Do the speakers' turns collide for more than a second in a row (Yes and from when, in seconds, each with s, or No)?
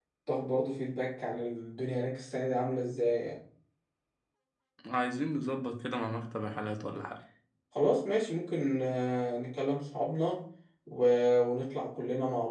No